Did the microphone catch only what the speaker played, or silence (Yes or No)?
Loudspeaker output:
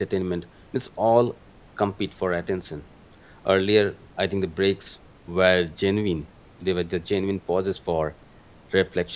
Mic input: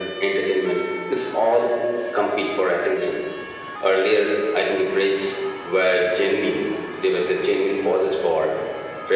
Yes